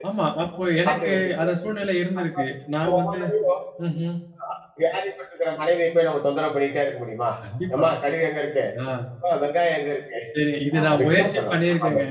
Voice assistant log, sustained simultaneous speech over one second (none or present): present